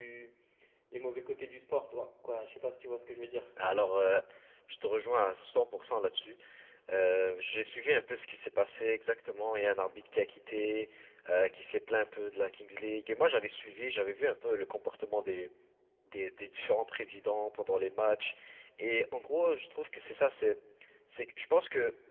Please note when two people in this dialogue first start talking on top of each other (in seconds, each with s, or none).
none